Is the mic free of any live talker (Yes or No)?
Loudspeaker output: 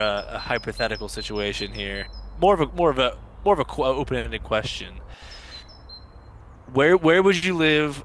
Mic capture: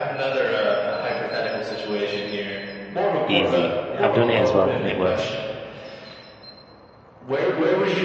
No